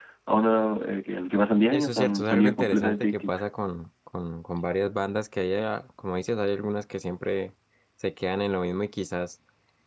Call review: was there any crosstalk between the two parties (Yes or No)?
Yes